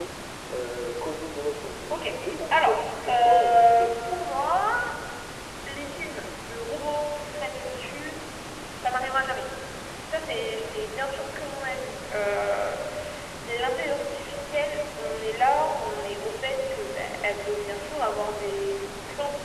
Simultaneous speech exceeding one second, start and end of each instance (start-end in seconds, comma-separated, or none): 2.5-4.0